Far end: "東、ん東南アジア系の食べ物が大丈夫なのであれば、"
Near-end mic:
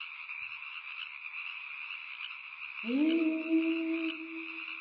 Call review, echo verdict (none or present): none